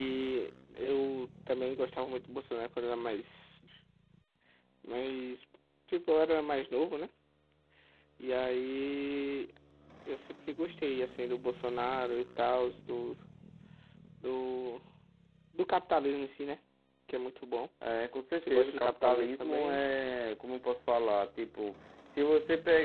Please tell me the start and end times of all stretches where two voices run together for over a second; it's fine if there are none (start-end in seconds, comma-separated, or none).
18.4-19.8